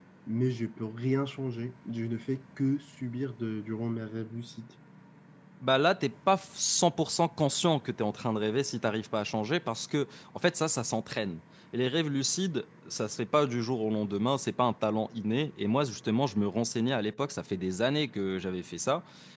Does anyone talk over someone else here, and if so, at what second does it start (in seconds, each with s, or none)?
none